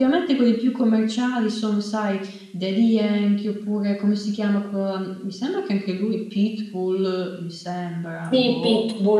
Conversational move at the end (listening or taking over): taking over